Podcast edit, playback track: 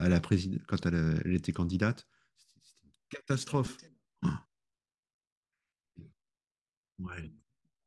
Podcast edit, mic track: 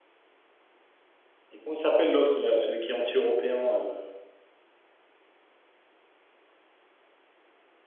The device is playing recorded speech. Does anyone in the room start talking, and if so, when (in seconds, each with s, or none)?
1.5 s